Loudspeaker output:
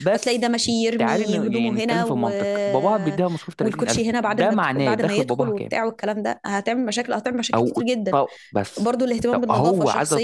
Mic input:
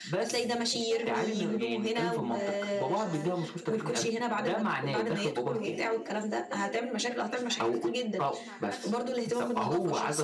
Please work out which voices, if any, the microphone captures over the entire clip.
both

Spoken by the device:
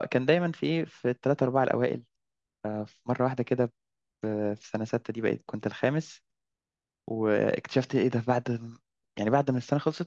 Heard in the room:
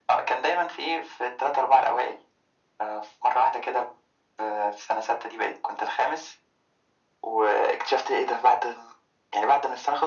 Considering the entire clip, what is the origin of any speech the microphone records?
echo only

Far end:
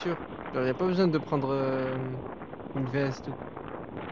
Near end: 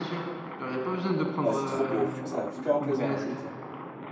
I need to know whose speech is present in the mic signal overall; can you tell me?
both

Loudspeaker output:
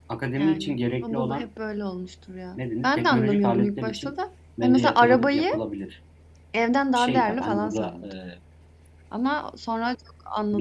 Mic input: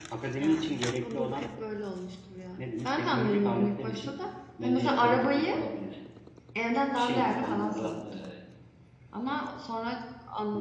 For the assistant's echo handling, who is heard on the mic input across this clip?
echo only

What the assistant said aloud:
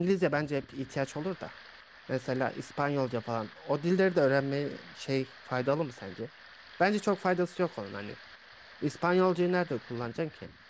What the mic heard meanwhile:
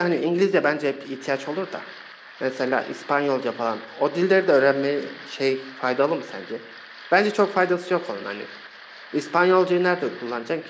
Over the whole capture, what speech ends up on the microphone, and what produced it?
echo only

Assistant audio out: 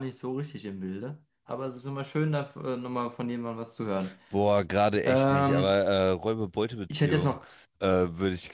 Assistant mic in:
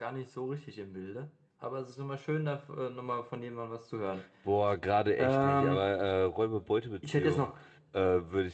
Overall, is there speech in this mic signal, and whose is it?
echo only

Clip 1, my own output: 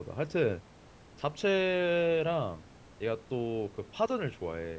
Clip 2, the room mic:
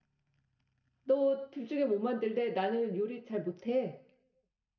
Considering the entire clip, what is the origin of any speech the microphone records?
user only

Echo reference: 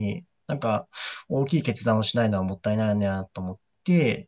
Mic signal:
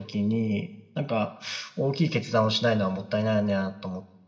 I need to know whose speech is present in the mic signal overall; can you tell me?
echo only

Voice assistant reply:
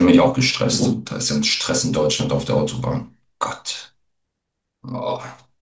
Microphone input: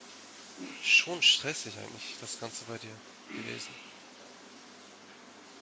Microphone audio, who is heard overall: user only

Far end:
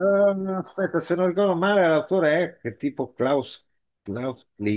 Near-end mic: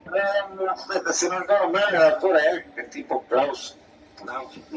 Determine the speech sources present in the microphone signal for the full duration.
echo only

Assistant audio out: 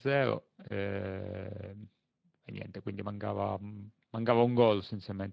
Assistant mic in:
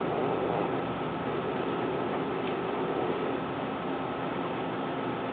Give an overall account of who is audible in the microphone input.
neither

